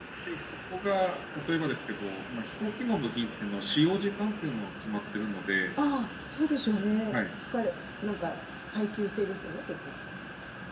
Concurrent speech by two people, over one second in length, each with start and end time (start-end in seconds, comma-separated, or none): none